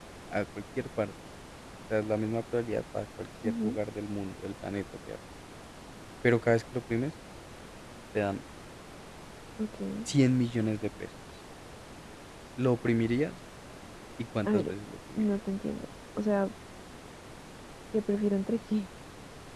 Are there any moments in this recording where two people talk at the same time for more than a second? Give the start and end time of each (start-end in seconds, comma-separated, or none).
none